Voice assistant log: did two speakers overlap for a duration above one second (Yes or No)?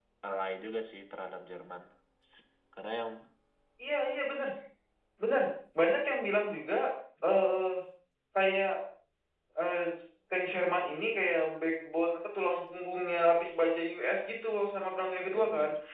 No